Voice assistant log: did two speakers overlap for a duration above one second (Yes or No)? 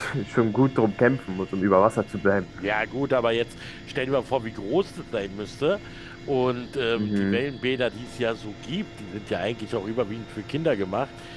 No